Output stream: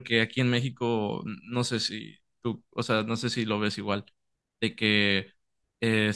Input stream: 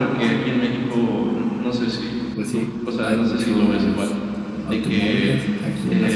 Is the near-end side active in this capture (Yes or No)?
Yes